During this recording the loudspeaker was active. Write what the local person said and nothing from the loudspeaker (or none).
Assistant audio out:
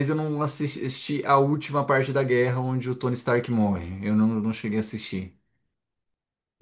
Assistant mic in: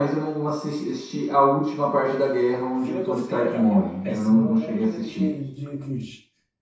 Filme com freira, pra mim, é péssimo. Eu morro de medo de, de cruz.